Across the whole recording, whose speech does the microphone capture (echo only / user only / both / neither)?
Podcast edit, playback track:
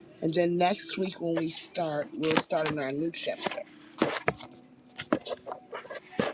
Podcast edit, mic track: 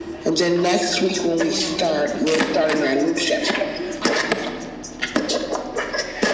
both